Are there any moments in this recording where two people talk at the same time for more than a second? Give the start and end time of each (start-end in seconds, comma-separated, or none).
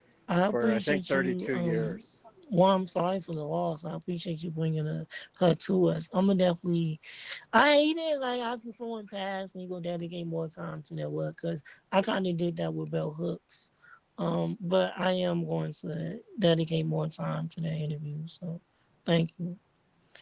0.5-2.0